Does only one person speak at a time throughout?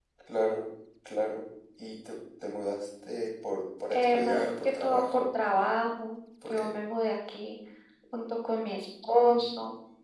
No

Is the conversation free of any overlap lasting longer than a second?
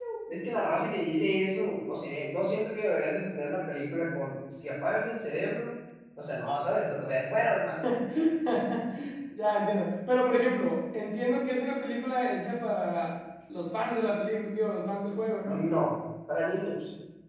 Yes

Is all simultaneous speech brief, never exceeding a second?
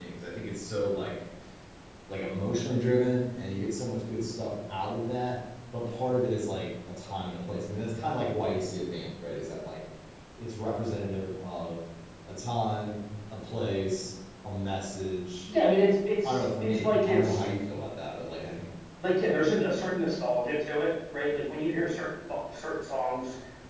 No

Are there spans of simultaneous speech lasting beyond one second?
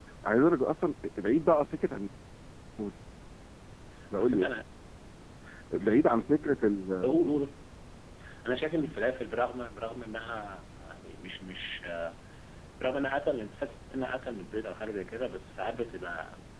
No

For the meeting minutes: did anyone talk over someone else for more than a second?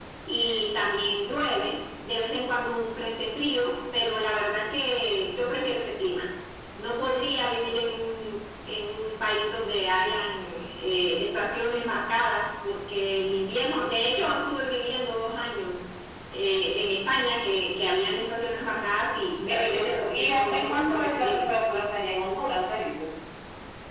Yes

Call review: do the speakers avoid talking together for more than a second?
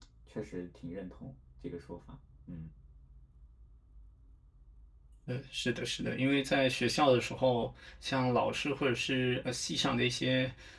Yes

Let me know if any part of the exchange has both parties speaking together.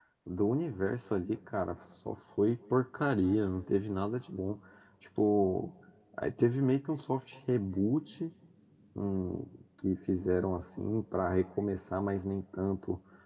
No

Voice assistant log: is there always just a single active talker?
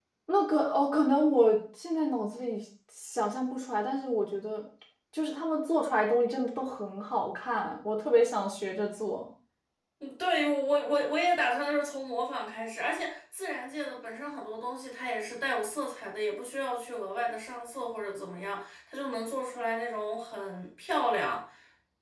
Yes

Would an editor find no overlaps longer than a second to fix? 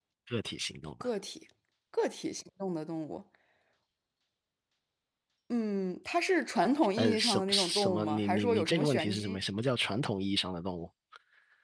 No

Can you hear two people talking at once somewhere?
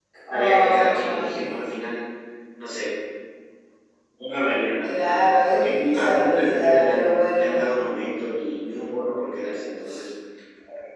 Yes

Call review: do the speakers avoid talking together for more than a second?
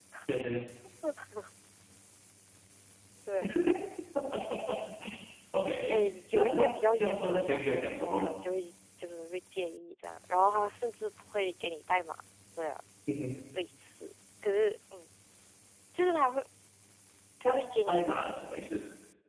No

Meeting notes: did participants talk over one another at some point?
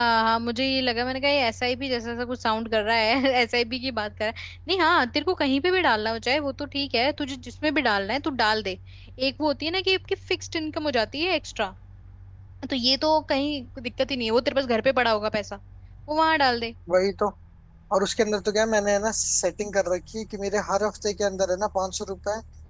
No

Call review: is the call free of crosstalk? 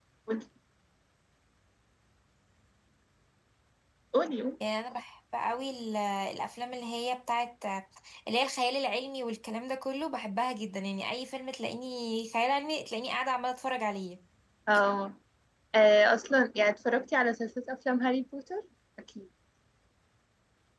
Yes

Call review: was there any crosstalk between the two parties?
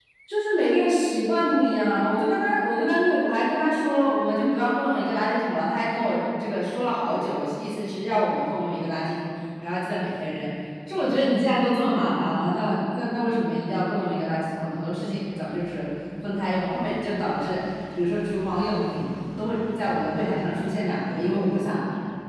No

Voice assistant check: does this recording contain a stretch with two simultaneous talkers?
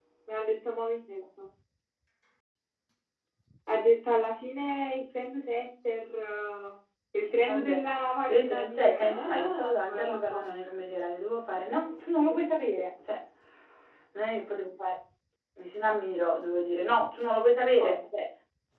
Yes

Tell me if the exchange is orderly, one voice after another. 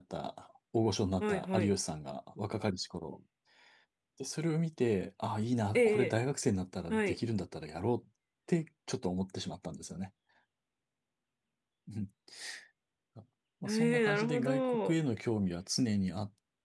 No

